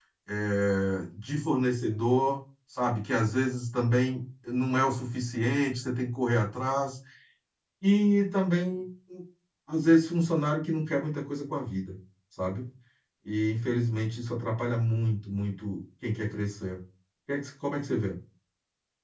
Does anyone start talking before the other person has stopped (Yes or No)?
No